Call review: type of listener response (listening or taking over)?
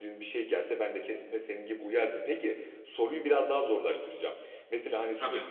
listening